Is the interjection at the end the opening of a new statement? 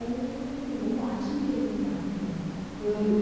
Yes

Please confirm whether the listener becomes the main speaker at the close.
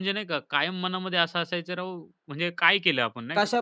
Yes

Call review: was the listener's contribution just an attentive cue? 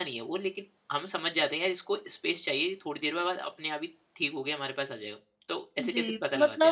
No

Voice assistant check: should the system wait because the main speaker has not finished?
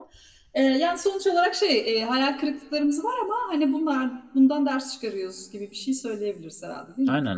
No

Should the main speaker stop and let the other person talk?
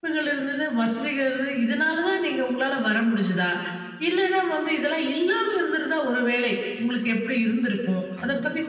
No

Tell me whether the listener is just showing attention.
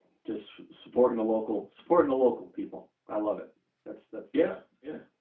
No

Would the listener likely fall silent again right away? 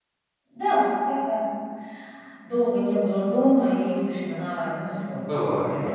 No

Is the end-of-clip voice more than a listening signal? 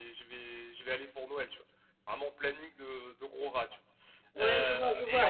Yes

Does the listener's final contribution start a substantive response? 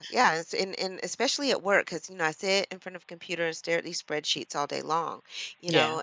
No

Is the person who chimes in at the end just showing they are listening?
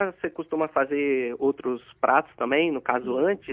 No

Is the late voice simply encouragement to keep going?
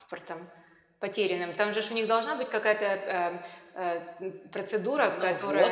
No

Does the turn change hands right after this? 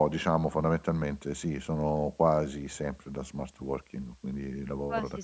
Yes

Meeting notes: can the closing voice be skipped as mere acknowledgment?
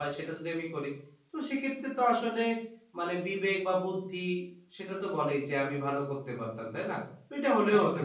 No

